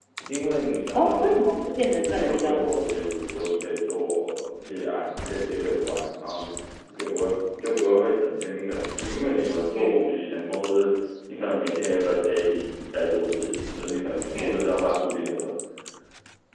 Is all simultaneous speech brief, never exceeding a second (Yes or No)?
No